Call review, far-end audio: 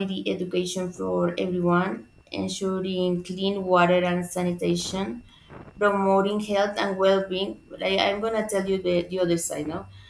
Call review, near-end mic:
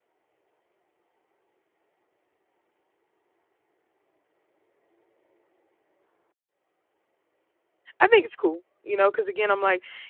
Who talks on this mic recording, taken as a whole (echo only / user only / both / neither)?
user only